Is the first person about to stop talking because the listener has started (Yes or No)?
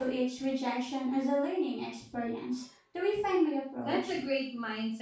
Yes